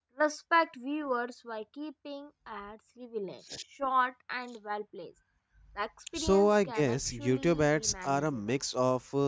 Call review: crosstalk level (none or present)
present